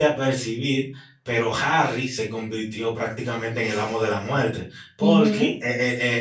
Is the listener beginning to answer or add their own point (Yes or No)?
No